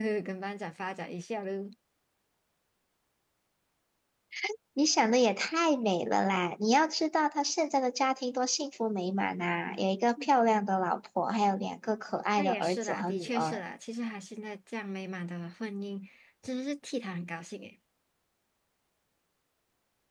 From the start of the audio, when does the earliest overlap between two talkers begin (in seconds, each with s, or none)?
12.4 s